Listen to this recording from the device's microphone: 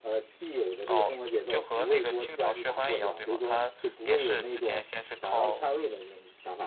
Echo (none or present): present